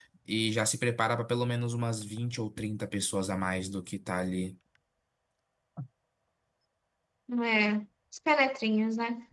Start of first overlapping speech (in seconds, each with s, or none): none